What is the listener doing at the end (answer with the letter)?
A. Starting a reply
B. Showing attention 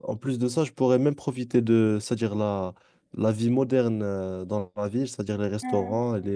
B